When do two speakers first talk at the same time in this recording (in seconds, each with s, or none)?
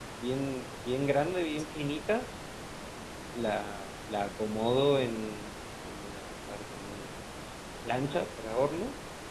none